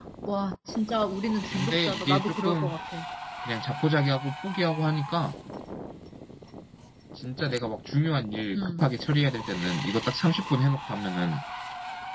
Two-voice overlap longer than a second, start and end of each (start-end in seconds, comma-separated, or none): 1.5-2.7